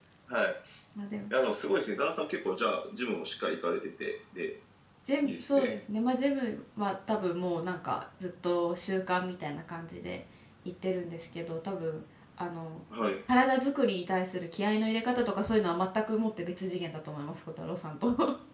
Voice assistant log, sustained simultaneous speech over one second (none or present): none